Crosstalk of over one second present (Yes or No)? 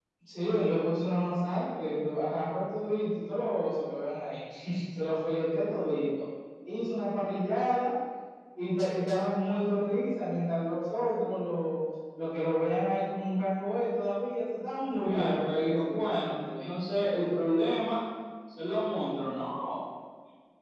Yes